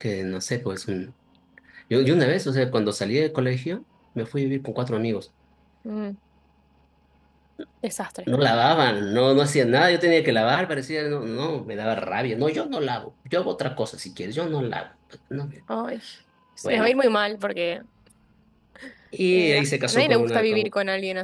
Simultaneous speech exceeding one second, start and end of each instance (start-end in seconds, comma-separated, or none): 19.3-20.7